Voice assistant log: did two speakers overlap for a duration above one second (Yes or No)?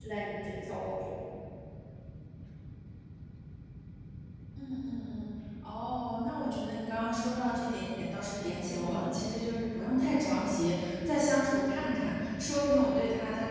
No